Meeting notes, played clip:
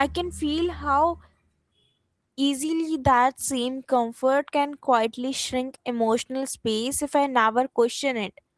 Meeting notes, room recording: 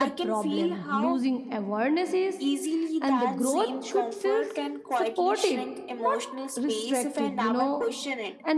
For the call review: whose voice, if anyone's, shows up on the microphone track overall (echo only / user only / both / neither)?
both